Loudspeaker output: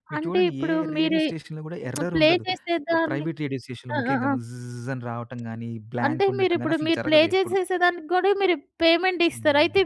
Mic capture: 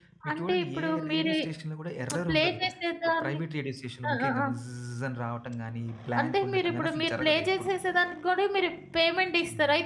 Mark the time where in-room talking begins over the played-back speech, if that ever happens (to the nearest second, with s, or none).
none